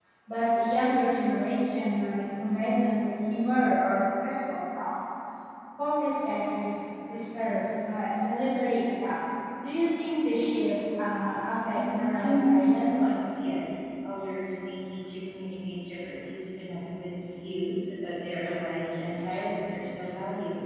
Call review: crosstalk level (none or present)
present